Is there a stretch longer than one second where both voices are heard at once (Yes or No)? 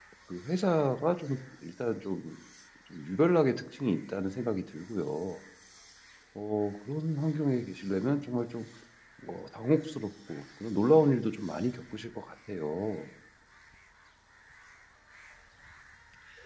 No